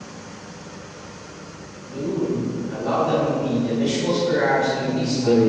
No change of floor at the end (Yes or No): No